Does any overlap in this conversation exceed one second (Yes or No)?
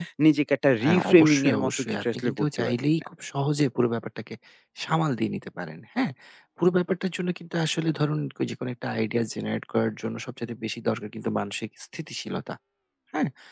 Yes